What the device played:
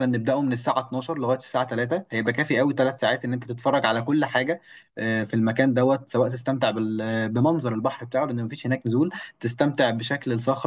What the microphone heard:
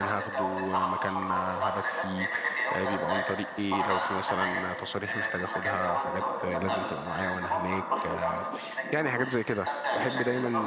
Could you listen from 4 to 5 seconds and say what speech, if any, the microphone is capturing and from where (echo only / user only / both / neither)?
both